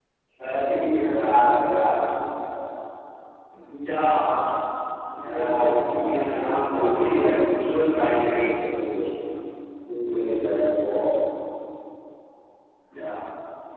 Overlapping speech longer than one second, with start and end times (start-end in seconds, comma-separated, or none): 5.2-7.3